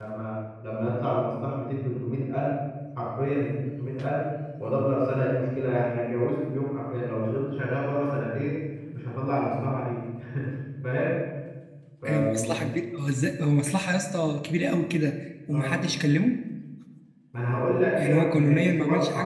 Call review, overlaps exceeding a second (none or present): present